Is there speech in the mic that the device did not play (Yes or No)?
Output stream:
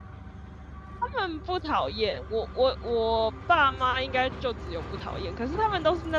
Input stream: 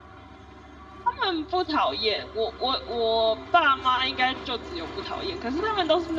No